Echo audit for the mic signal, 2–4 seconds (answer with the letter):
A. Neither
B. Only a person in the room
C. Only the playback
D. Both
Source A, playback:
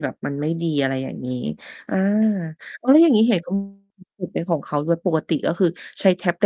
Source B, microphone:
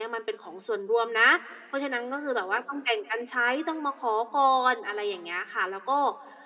B